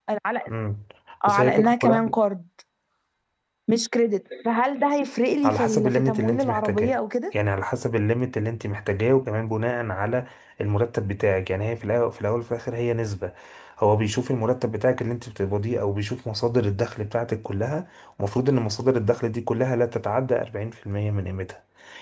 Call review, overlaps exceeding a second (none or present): present